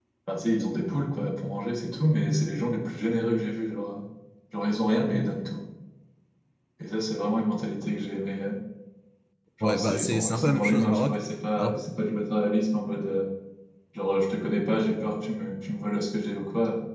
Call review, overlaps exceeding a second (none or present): present